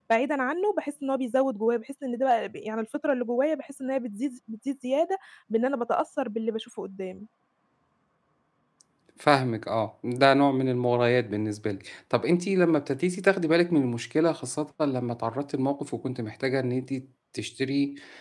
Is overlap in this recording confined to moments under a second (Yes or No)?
Yes